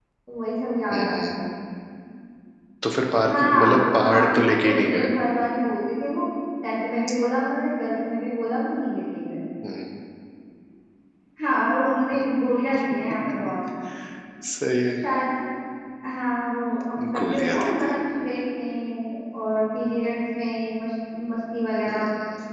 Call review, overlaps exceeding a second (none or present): present